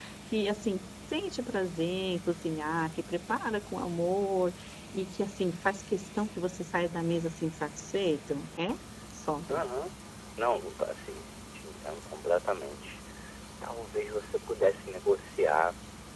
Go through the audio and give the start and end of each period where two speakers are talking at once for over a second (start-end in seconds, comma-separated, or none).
none